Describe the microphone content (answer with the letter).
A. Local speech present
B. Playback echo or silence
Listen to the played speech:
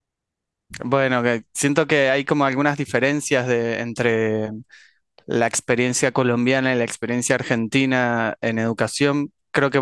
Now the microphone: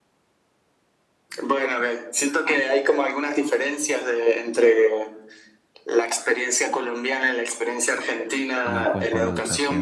A